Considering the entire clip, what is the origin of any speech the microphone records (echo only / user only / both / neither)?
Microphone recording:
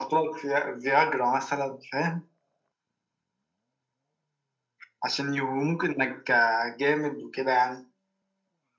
echo only